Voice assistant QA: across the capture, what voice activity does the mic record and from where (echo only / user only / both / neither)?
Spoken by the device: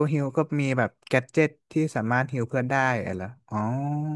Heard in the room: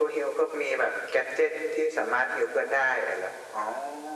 echo only